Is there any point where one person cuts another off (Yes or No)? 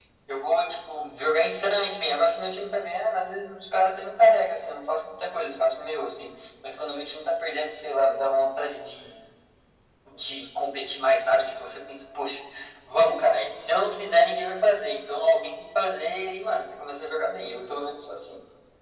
No